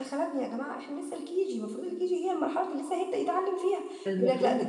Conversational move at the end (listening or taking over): listening